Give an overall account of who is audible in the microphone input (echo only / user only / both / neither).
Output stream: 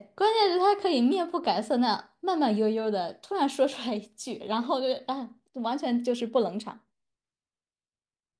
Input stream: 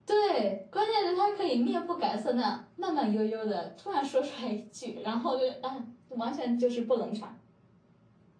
echo only